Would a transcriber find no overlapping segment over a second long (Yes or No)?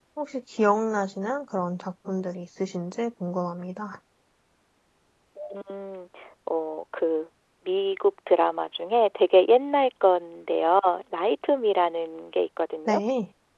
Yes